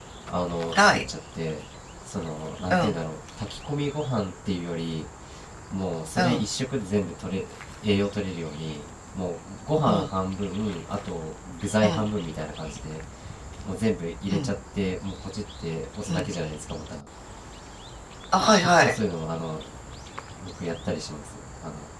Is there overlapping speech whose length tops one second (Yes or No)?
No